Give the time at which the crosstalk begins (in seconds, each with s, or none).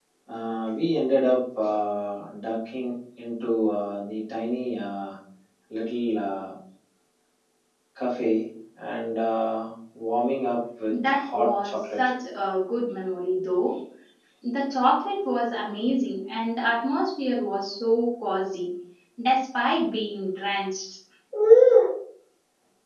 10.9 s